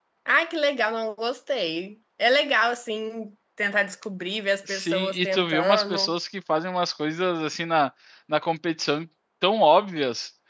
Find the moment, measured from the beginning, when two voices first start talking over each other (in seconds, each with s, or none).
4.7 s